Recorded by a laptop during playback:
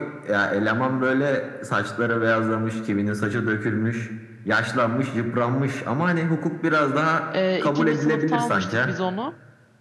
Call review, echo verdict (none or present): present